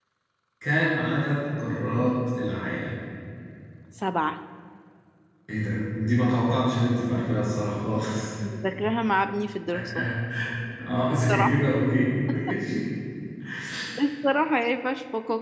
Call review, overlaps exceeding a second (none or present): none